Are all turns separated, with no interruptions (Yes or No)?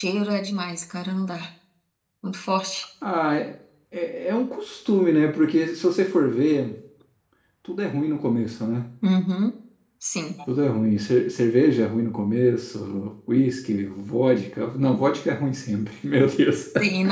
Yes